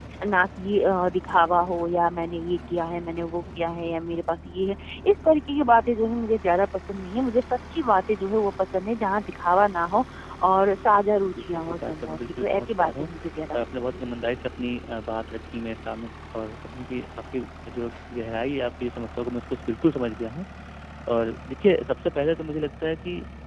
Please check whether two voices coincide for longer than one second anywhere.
Yes, from 11.2 s

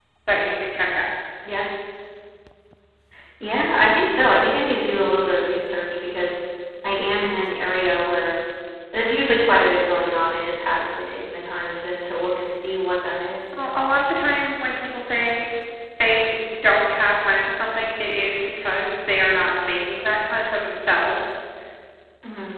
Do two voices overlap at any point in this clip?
No

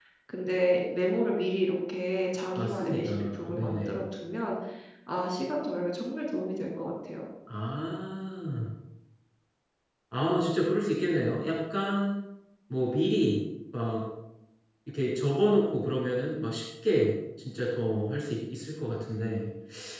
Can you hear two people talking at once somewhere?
Yes, from 2.6 s

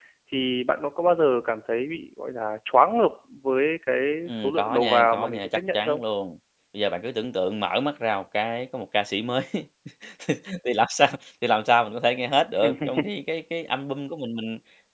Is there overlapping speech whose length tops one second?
Yes, from 4.3 s

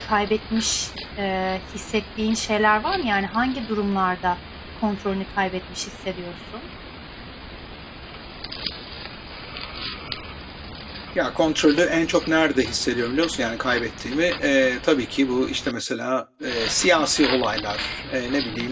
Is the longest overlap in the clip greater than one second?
No

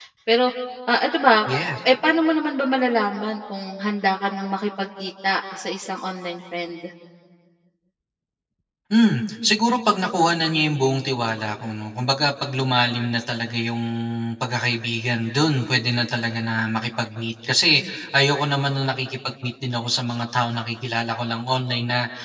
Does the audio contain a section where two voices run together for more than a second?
No

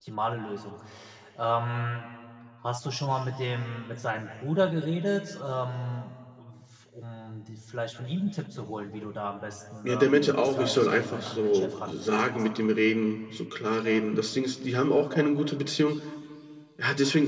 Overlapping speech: Yes, from 9.8 s

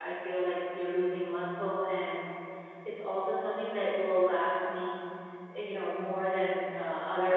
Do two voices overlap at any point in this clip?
No

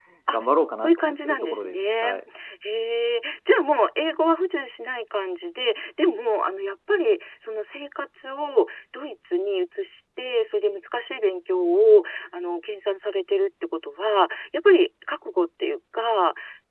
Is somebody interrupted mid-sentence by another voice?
Yes, from 0.8 s

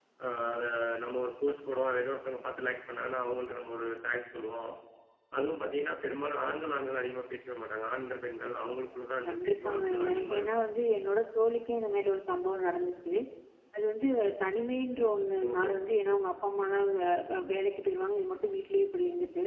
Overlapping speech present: Yes, from 9.3 s

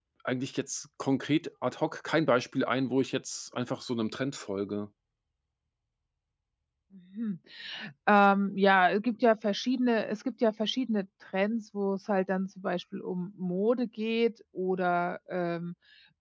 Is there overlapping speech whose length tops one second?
No

